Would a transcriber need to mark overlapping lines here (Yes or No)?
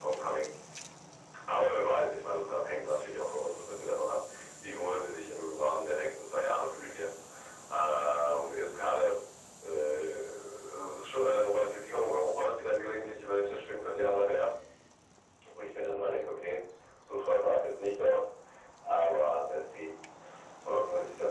No